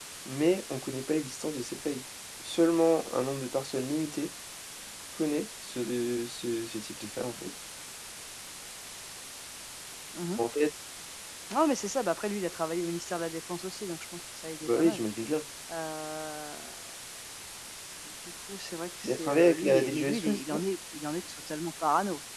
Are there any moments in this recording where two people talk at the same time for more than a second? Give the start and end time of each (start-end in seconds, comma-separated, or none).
19.0-20.6